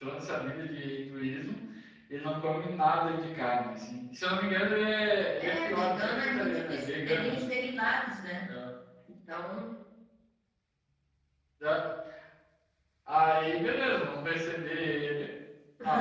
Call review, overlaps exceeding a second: present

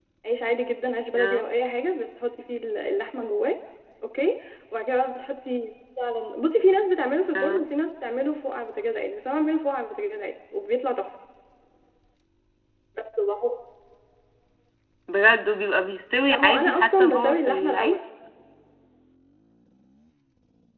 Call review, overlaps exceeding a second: present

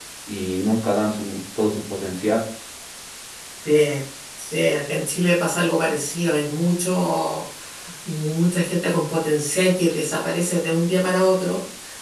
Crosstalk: none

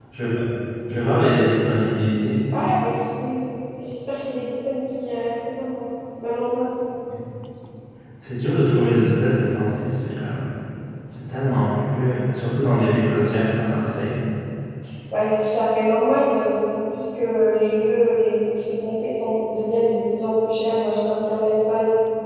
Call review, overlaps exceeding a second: none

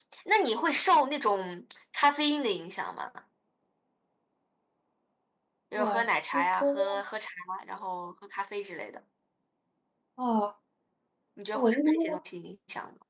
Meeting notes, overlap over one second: present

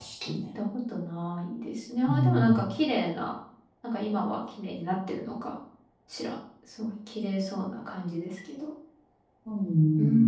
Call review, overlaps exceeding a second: none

